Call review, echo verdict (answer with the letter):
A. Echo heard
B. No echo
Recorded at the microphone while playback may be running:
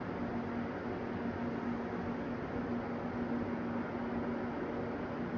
B